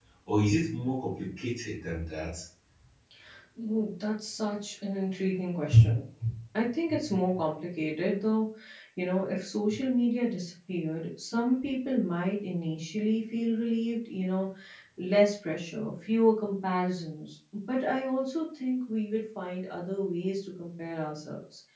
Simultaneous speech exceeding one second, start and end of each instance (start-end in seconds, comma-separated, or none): none